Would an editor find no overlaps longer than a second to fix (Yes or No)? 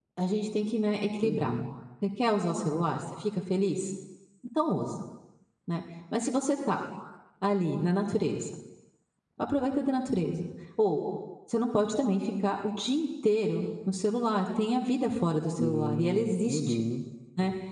No